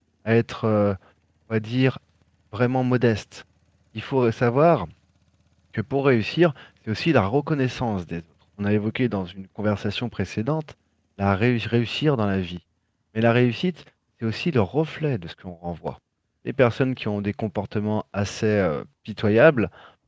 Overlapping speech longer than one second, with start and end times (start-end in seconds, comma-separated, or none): none